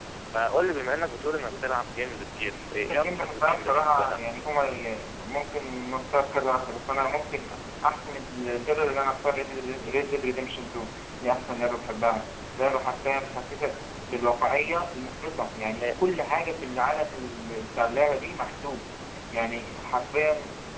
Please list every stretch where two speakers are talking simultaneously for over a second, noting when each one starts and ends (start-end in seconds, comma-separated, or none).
2.8-4.2